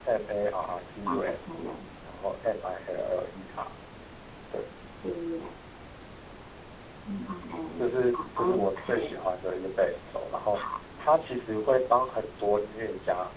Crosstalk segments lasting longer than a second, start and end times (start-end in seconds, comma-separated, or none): 7.8-9.2